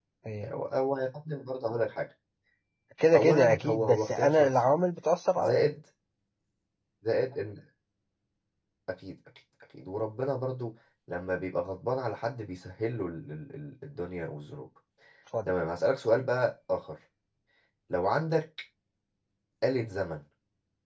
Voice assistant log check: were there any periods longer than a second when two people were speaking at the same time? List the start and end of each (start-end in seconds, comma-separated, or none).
3.1-4.5